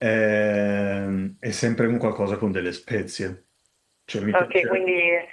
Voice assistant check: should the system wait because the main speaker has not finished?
No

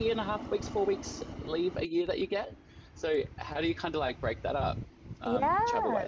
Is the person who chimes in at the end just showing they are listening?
No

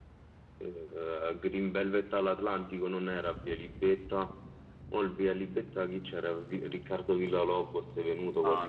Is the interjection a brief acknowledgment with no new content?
No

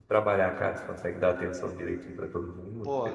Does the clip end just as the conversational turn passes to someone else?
Yes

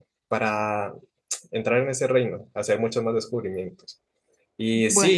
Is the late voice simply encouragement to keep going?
Yes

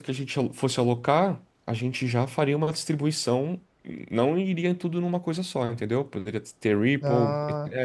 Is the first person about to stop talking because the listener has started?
No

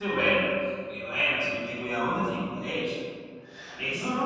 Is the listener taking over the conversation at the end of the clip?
Yes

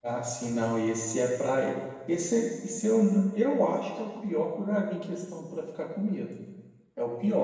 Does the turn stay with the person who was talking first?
Yes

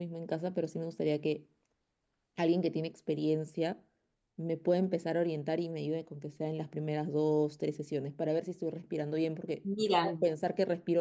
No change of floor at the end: Yes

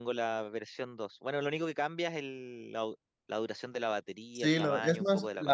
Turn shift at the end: Yes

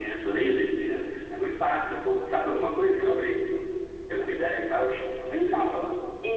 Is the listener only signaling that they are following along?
No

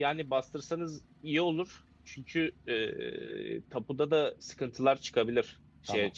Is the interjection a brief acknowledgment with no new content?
Yes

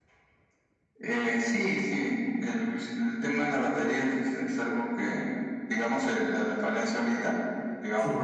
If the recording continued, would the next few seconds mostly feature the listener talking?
No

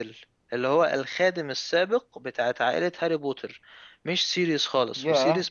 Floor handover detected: Yes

